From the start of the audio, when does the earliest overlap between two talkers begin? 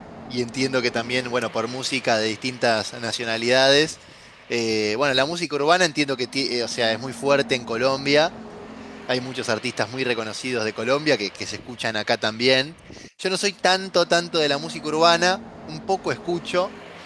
none

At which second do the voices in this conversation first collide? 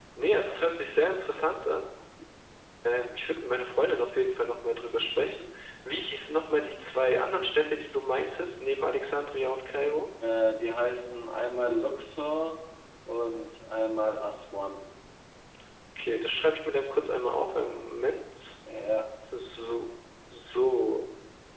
none

